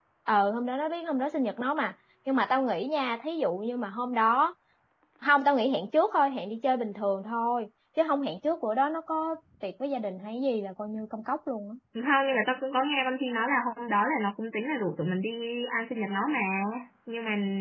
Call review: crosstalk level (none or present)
none